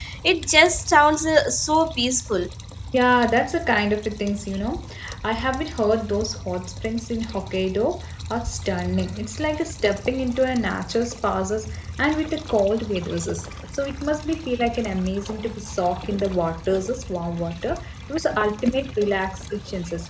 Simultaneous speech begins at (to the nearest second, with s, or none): none